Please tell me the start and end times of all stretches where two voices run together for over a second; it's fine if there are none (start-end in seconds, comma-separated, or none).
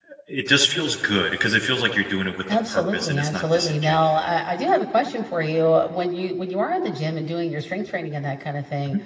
2.7-4.3